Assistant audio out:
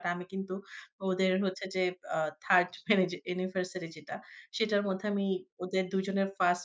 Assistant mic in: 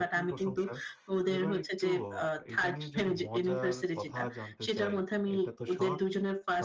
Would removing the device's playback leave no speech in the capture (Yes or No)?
No